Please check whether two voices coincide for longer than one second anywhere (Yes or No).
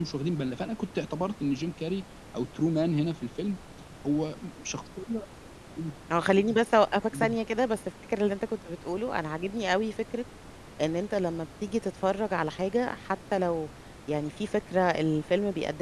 No